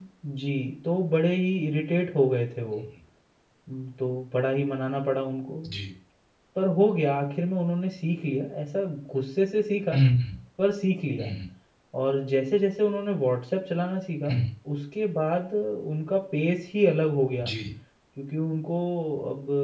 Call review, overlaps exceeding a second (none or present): none